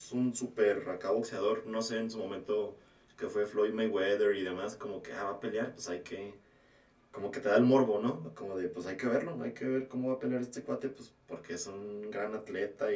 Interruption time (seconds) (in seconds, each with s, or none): none